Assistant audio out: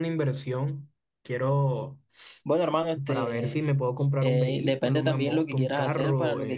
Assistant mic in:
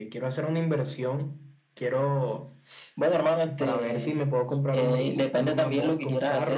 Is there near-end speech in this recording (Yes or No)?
No